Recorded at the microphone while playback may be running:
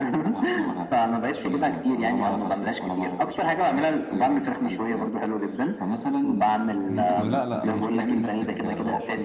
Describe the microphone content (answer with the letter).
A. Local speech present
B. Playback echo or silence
A